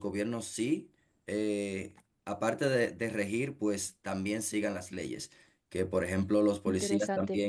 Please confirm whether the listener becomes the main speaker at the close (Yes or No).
No